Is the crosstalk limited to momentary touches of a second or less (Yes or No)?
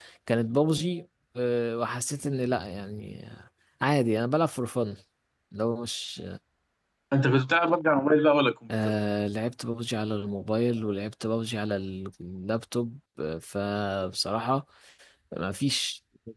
Yes